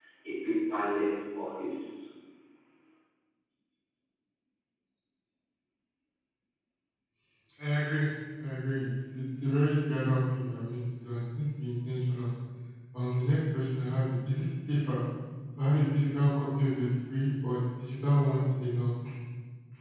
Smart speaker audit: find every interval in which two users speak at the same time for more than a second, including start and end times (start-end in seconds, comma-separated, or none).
none